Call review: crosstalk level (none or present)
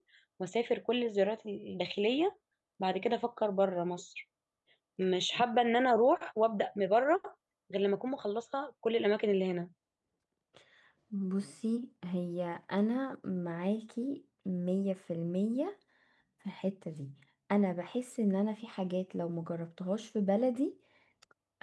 none